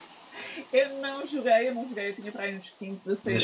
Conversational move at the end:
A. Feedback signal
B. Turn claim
B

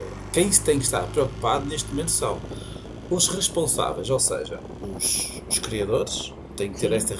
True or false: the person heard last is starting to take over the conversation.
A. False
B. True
A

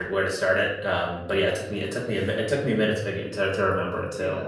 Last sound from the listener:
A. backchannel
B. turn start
B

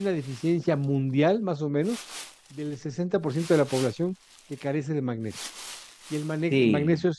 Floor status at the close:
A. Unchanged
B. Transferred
A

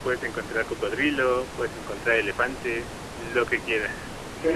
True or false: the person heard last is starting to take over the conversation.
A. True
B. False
A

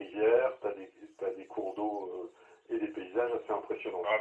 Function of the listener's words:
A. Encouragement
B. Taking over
B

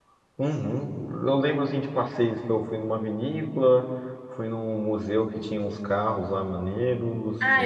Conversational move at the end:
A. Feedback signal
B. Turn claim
B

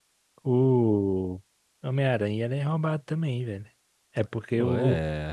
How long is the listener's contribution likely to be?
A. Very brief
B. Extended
A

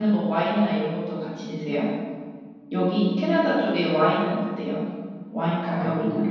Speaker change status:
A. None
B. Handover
B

